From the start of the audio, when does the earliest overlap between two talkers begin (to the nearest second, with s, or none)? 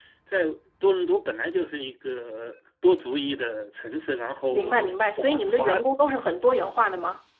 5 s